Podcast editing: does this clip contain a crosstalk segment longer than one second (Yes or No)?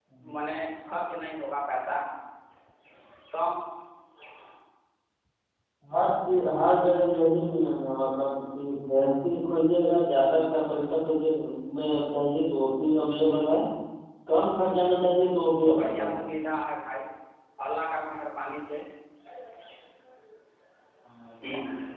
No